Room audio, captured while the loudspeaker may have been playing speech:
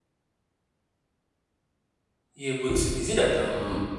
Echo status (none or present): none